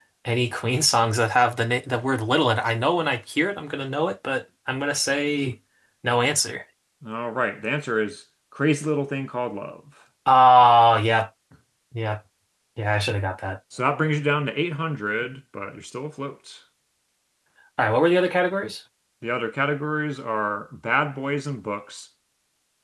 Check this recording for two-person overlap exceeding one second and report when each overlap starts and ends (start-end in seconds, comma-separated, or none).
none